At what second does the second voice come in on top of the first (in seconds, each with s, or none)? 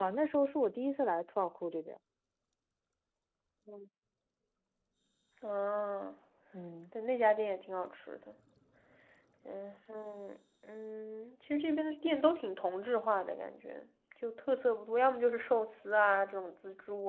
none